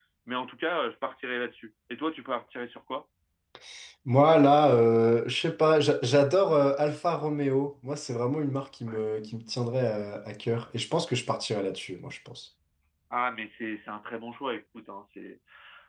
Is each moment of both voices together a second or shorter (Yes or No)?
Yes